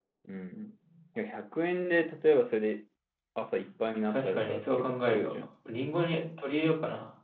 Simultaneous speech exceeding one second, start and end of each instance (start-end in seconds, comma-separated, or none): 4.1-5.3